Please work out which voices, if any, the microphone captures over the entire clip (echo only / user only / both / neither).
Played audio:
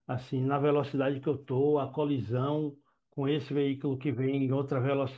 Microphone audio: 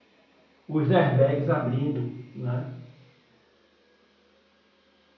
user only